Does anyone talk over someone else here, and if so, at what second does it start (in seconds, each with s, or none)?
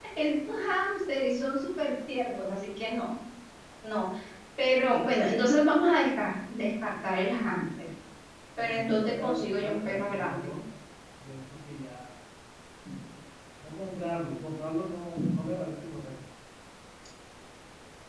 8.6 s